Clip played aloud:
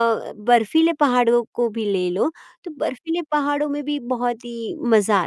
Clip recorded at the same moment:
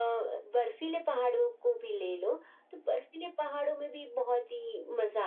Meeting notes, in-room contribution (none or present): none